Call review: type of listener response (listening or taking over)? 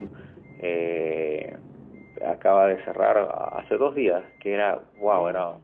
listening